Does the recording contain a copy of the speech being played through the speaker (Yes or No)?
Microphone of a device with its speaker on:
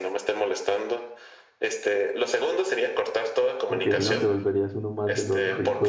Yes